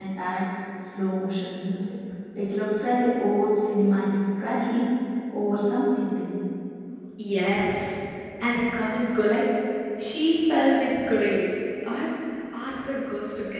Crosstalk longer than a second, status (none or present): none